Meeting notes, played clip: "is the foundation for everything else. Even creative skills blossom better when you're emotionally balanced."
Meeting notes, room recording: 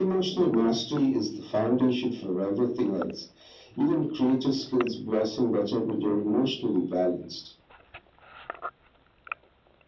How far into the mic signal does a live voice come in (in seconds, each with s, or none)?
none